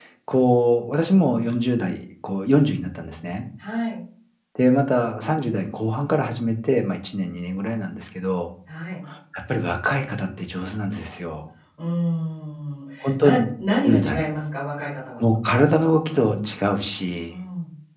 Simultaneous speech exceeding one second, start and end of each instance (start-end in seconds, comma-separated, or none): none